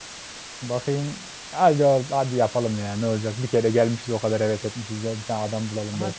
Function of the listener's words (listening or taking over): taking over